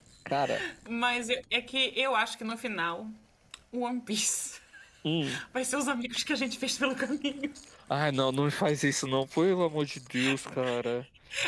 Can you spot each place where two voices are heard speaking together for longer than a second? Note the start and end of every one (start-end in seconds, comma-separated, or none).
none